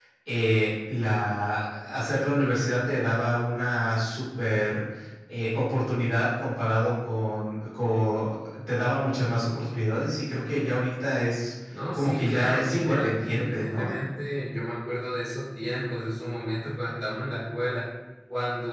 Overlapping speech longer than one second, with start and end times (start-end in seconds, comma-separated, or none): 11.9-13.9